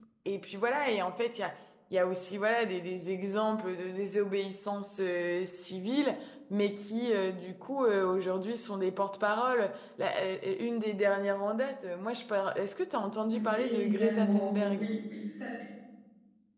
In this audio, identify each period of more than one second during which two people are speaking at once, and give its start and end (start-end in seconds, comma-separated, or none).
13.3-14.9